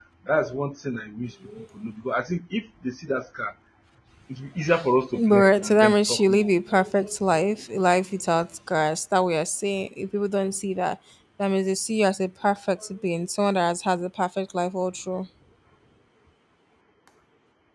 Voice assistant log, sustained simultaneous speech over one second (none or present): present